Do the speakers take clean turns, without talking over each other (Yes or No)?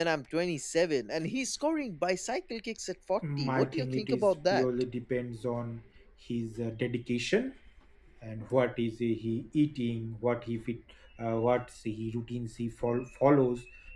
No